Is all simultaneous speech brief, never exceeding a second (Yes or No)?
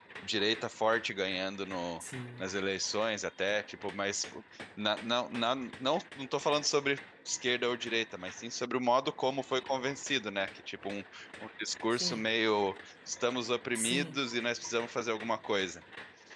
Yes